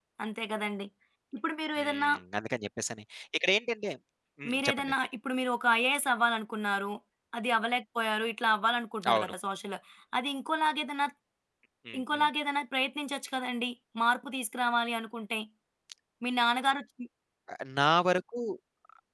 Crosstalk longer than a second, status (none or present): none